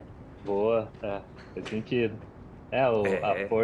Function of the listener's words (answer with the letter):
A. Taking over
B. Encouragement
B